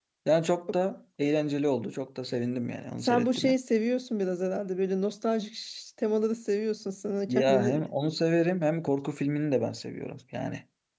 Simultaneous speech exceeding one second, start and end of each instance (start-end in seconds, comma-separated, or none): none